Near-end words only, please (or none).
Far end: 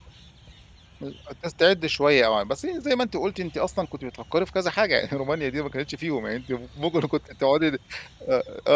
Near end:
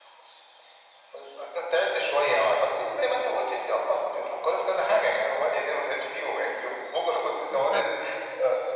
بالضبط.